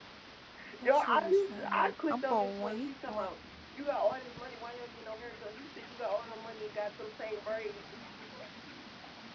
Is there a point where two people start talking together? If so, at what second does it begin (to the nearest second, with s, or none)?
1 s